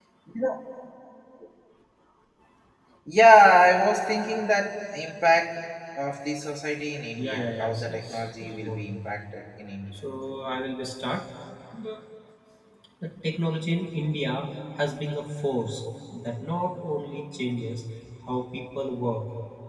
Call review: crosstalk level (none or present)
present